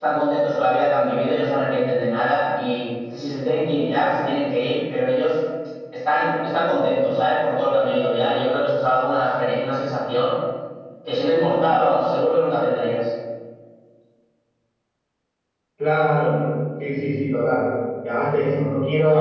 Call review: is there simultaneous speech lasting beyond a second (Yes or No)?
No